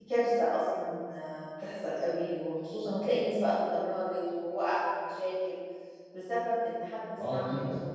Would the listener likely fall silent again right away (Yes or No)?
Yes